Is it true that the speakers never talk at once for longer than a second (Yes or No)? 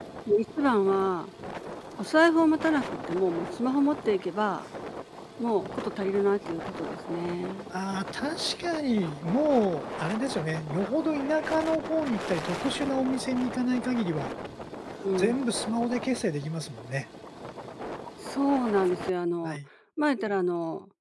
Yes